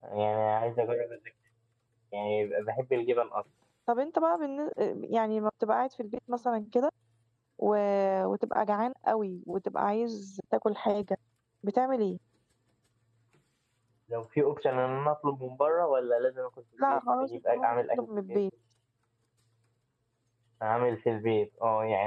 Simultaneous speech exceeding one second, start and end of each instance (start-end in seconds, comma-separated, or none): 16.9-18.4